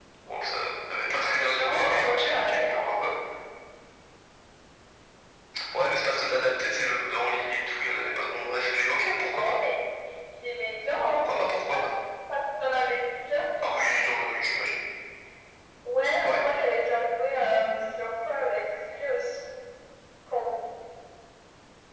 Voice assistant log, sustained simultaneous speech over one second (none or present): present